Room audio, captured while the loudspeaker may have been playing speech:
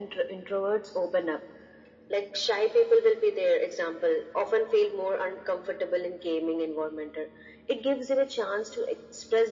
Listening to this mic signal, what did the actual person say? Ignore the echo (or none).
none